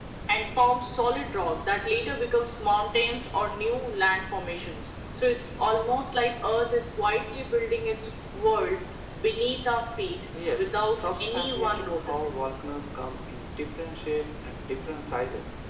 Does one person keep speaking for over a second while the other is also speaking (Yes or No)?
Yes